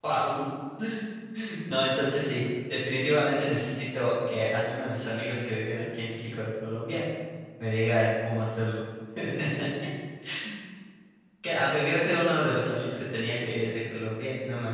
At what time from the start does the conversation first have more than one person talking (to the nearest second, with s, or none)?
none